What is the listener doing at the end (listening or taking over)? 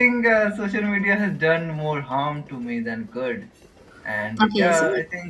taking over